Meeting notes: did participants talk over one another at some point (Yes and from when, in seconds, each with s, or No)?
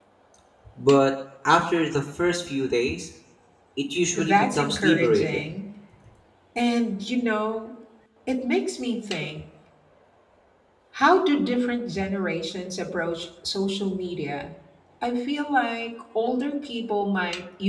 Yes, from 4.2 s